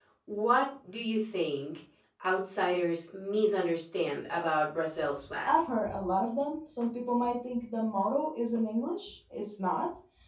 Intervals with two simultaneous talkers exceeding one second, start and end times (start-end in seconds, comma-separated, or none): none